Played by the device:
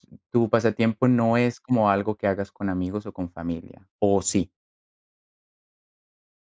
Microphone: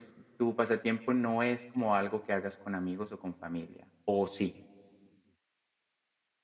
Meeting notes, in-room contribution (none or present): none